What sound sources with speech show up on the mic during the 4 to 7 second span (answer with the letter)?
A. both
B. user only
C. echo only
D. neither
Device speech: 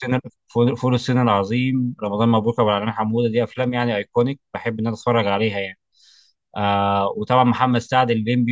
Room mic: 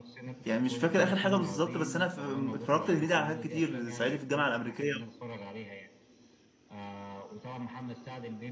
A